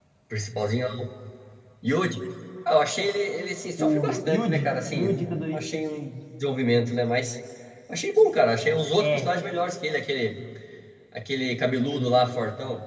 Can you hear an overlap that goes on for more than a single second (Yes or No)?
Yes